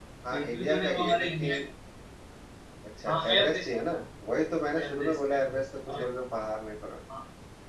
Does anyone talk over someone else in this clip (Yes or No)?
Yes